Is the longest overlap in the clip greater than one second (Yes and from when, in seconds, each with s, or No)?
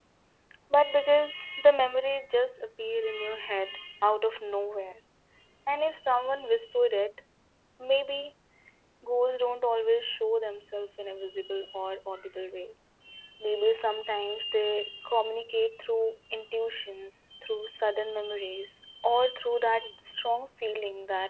No